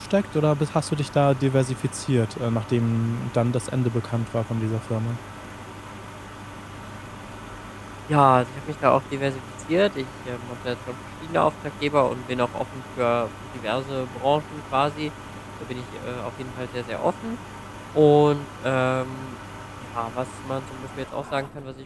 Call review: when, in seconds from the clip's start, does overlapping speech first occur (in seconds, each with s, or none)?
none